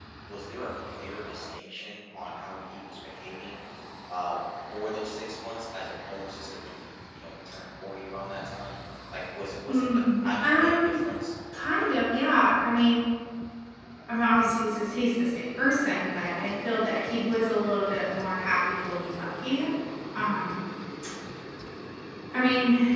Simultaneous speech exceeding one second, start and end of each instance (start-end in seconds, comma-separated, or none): 9.7-11.0